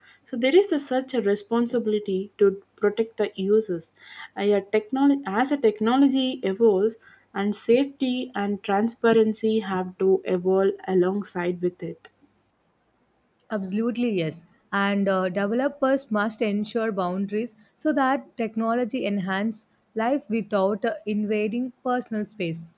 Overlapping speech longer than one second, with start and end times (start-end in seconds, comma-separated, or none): none